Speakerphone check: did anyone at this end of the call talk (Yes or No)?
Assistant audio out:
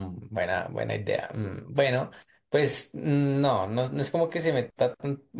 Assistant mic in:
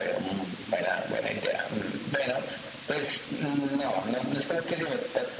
No